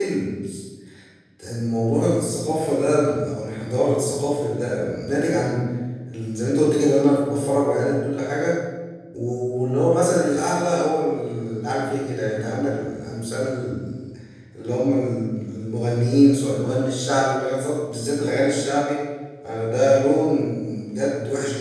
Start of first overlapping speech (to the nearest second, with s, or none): none